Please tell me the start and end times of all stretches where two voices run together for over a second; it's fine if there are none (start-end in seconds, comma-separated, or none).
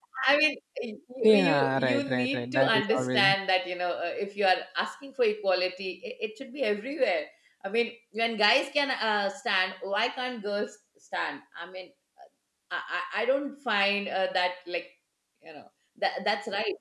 1.2-3.2